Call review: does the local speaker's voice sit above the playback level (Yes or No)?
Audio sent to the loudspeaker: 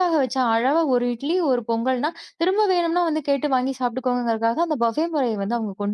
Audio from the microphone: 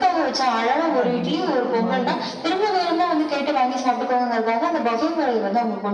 No